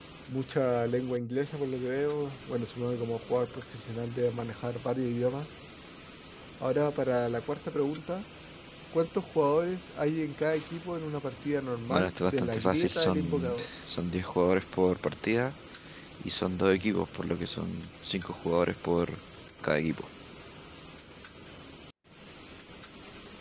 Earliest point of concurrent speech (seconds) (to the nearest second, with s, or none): 12 s